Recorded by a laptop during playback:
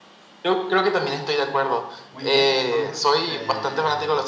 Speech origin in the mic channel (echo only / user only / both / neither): both